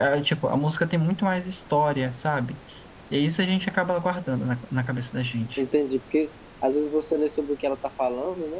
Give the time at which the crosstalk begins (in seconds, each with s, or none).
none